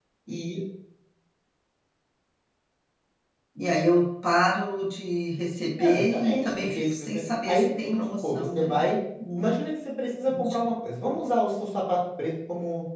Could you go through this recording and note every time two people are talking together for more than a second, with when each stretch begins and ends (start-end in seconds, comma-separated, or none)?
5.8-8.8